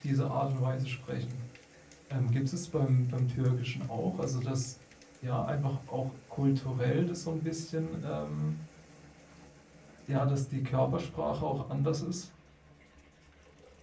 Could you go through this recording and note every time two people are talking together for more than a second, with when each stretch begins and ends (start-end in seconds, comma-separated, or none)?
none